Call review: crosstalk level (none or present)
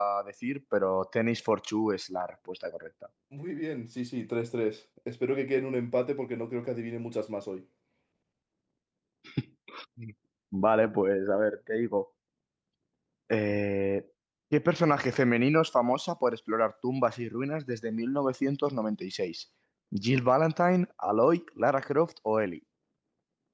none